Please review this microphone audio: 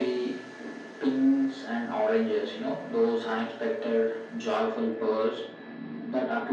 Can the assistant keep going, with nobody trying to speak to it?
Yes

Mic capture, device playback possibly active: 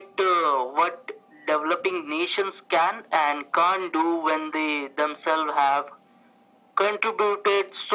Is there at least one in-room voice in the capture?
No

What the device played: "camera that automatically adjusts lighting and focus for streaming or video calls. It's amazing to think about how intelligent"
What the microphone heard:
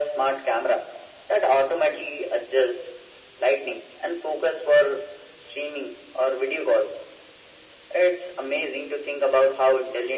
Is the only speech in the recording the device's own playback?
Yes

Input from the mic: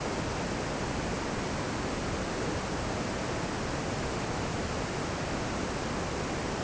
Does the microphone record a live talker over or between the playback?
No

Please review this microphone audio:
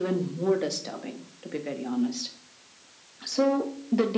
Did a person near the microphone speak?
No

